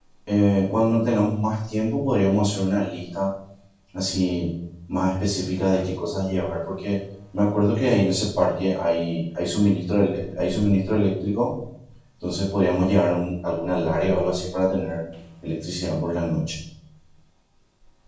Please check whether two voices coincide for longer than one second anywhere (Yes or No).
No